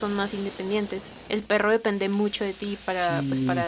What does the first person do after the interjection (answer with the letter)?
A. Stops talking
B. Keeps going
B